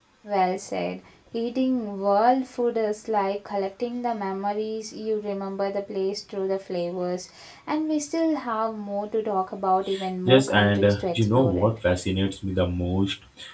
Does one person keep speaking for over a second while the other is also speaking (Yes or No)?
Yes